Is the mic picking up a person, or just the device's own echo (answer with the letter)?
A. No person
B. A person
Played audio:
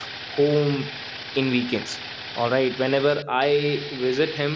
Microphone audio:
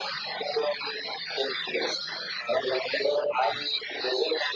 A